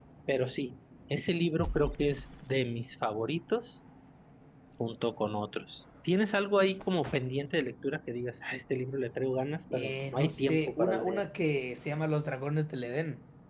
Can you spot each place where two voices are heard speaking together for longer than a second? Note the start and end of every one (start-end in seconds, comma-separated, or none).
9.7-11.2